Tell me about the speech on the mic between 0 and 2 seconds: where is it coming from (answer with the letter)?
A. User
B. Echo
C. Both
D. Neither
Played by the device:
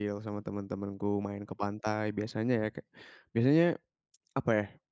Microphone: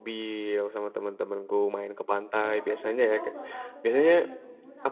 B